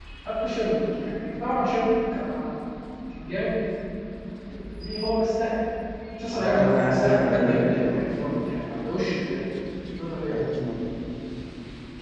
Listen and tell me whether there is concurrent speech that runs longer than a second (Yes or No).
Yes